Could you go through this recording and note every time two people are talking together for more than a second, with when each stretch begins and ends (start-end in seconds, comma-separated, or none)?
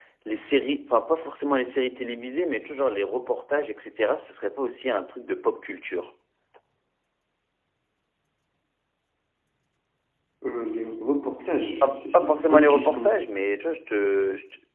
11.8-13.2